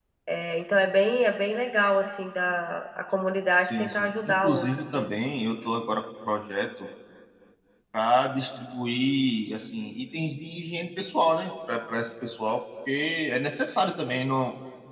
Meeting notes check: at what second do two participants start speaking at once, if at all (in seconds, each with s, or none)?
3.6 s